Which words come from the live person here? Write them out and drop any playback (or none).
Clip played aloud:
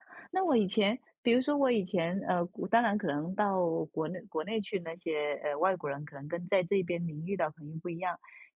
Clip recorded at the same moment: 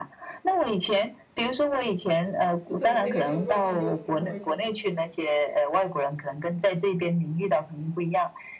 不等那个球落地就弹回去了。